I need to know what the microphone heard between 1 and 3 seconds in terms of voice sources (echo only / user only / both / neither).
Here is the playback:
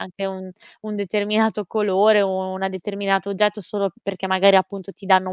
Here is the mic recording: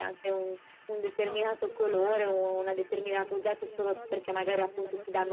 both